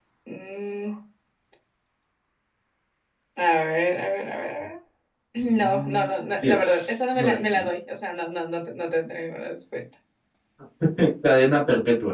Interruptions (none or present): present